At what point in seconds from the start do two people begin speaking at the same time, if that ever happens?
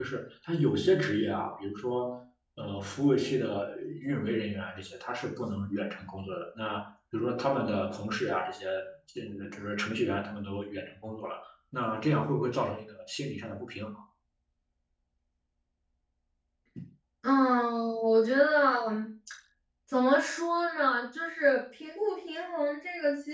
none

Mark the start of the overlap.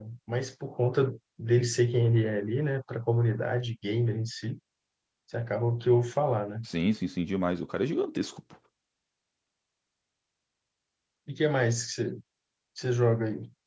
none

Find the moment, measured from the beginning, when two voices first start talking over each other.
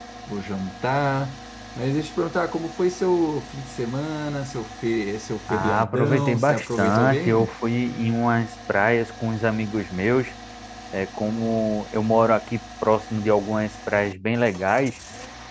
5.5 s

